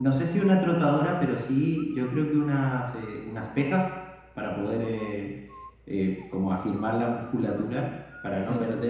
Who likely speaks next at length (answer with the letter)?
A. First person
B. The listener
A